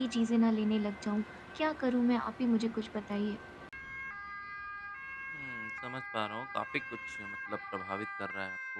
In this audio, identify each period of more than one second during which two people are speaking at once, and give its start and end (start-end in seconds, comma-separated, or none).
none